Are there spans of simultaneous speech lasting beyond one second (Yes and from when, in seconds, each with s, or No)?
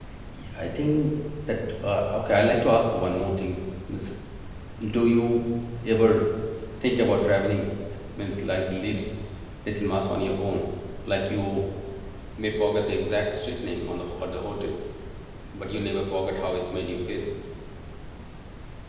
No